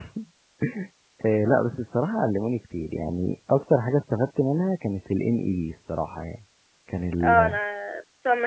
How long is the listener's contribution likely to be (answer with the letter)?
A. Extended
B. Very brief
A